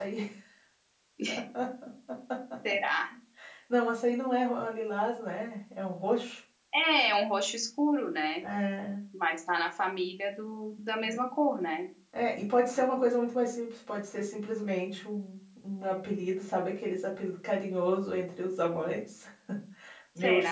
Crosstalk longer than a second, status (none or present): none